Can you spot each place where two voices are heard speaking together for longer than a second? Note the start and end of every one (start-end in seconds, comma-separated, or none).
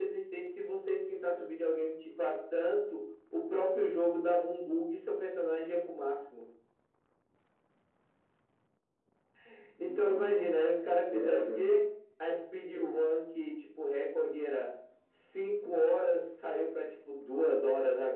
9.8-11.6